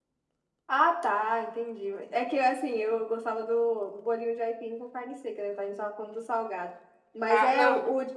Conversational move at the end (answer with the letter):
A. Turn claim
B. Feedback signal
B